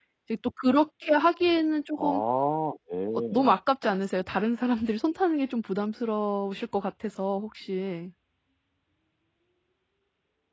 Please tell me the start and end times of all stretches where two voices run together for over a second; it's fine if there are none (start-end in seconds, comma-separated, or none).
none